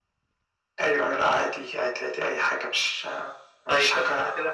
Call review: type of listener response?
taking over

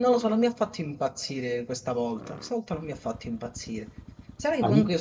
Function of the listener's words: listening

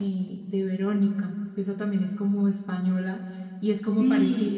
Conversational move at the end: taking over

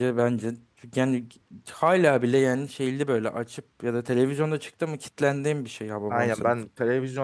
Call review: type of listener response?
taking over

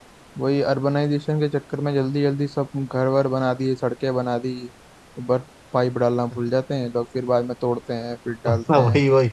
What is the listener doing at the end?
taking over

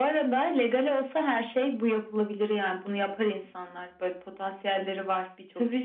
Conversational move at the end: taking over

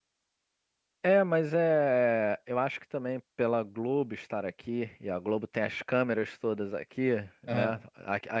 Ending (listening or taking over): listening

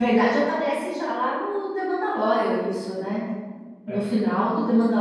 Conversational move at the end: listening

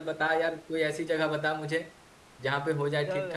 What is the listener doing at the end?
taking over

